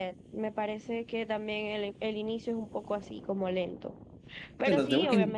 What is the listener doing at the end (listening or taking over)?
taking over